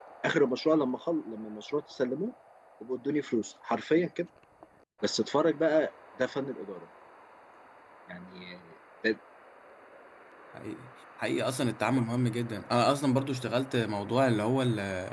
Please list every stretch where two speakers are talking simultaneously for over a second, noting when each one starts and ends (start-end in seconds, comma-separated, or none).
none